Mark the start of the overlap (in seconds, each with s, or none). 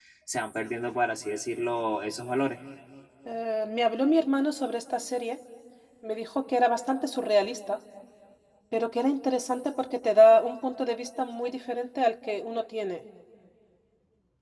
none